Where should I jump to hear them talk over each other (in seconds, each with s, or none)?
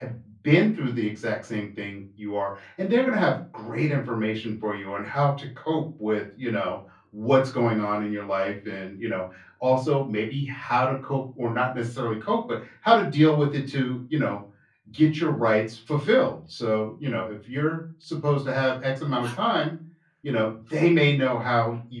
none